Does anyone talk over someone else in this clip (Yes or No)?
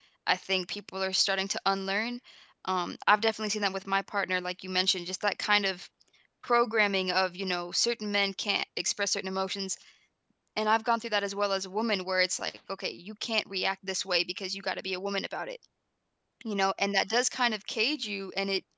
No